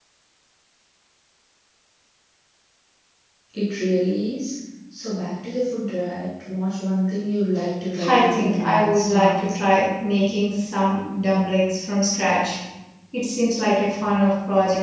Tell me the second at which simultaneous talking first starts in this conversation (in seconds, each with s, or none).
8.0 s